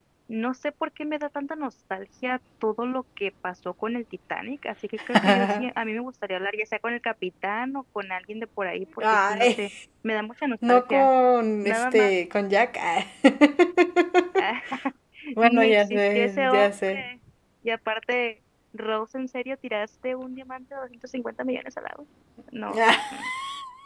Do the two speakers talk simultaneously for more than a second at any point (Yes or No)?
Yes